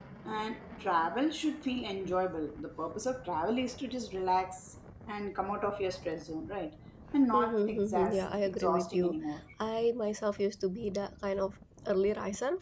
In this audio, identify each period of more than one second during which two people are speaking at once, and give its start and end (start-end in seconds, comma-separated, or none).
7.3-9.2